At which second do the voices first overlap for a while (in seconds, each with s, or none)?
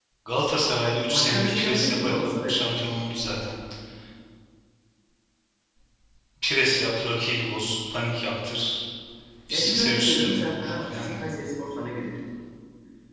1.1 s